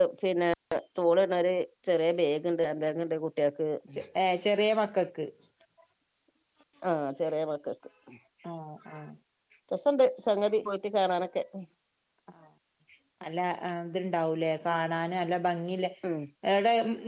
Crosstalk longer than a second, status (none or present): none